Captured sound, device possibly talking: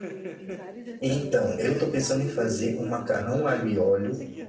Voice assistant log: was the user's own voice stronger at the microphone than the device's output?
Yes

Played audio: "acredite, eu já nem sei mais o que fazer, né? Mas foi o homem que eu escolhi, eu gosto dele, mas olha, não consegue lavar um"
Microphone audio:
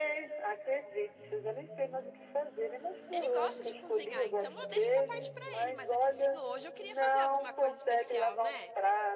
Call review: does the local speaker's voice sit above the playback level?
No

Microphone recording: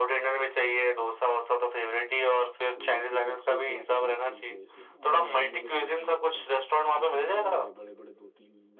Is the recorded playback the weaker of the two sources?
No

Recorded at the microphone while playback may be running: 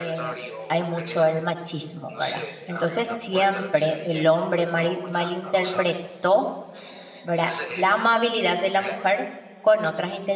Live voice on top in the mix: Yes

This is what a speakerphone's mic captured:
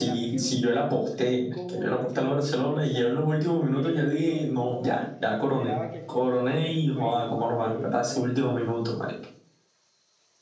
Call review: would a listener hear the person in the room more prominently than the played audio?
No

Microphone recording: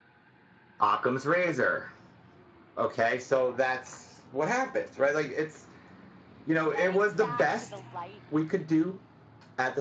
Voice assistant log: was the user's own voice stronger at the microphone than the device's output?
No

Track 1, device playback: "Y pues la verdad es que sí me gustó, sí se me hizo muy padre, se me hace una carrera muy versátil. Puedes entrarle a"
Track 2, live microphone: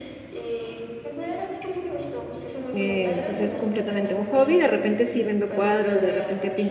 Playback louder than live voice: No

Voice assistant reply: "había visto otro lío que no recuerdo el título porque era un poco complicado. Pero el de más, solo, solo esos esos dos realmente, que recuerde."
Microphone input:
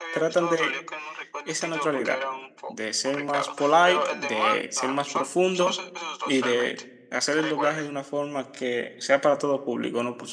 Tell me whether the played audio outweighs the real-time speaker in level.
No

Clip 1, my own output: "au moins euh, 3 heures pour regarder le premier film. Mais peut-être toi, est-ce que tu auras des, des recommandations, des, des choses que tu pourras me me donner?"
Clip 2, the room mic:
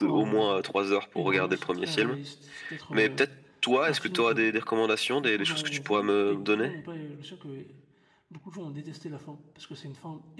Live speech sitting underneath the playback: Yes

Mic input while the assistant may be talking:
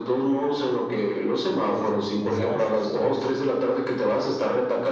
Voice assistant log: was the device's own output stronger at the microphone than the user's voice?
Yes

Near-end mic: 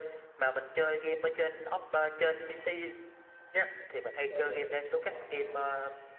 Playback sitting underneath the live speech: No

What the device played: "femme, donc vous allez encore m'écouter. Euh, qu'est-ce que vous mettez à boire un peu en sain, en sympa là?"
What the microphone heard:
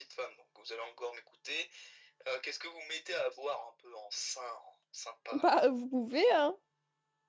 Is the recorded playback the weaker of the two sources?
Yes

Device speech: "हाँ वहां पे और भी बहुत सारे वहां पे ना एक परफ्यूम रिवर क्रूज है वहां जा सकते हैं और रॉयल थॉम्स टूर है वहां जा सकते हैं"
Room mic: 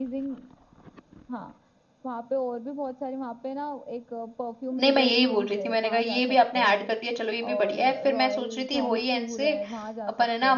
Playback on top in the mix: No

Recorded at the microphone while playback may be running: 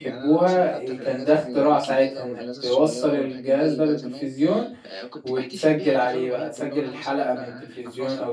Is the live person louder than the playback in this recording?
Yes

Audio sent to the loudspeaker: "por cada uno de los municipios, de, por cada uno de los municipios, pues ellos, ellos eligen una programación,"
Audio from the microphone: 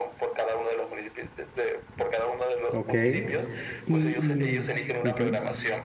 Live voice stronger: Yes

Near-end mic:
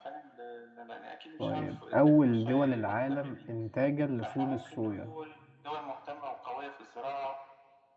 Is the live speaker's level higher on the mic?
Yes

